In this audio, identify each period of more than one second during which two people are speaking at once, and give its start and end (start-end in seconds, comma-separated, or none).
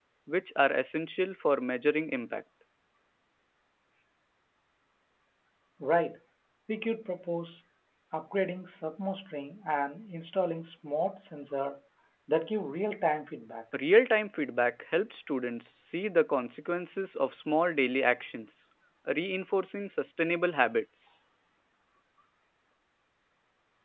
none